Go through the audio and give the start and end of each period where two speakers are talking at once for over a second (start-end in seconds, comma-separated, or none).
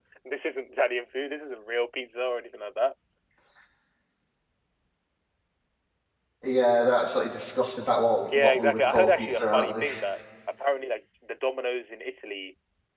8.2-9.8